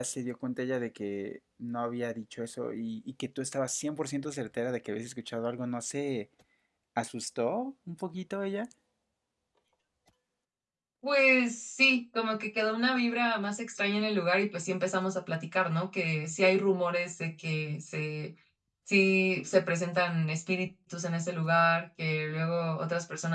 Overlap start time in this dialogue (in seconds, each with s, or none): none